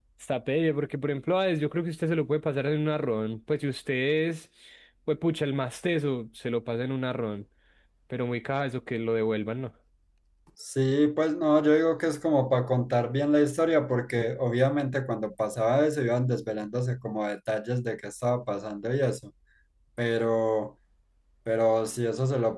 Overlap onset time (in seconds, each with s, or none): none